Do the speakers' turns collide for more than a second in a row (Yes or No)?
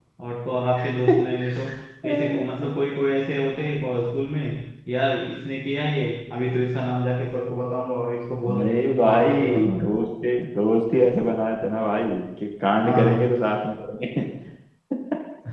Yes